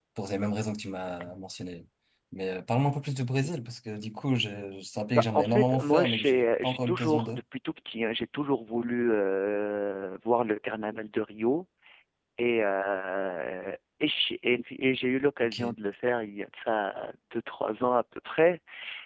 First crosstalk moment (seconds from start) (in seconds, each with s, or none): 5.1 s